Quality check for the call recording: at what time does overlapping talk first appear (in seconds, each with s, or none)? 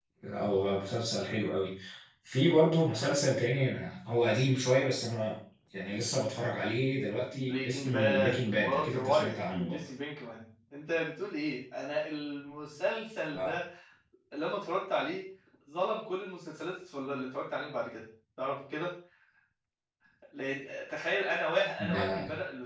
7.3 s